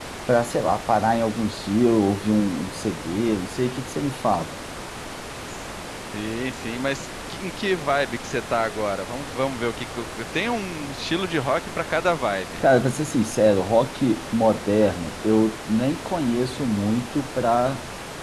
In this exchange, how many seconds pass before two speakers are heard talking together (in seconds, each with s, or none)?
none